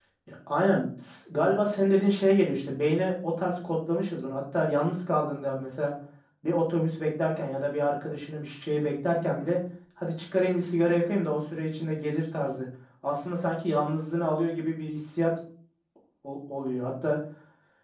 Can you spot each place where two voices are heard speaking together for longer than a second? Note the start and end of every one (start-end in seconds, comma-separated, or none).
none